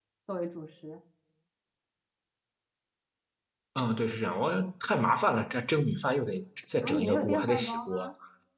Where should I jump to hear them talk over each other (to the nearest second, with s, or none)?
7 s